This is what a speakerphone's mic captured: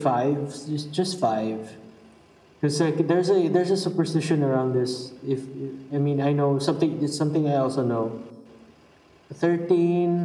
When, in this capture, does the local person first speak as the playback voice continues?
none

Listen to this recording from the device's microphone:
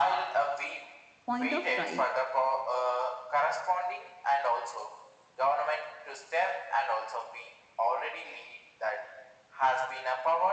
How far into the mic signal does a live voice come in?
1.2 s

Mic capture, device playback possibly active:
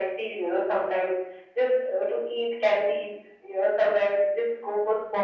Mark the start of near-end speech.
none

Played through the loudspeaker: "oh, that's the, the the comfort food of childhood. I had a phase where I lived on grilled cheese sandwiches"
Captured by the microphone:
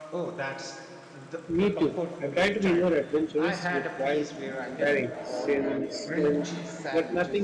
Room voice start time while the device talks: 1.5 s

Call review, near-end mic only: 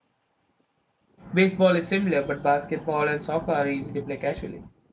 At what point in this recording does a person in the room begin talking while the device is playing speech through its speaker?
1.3 s

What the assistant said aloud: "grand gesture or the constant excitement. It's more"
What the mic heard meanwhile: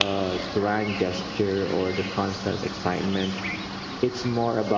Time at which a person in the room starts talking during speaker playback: none

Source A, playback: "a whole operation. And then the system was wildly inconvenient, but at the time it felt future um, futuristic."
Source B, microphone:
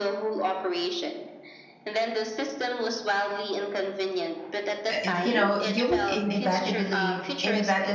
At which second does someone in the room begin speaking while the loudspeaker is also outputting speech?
4.9 s

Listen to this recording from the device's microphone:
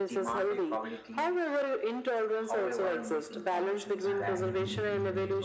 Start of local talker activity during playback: 4.0 s

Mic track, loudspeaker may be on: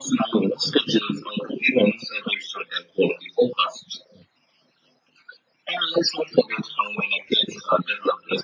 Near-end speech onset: none

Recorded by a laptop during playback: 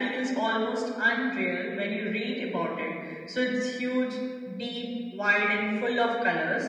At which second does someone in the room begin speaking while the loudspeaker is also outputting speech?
none

